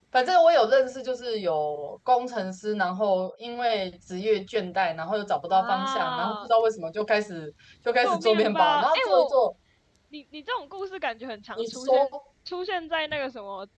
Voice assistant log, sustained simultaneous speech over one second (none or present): present